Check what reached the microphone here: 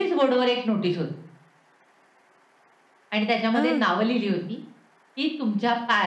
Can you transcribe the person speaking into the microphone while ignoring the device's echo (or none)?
हं.